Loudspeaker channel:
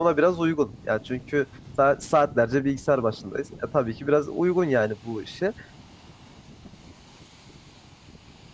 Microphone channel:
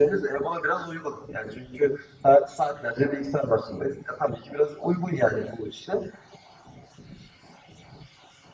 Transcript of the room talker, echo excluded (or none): none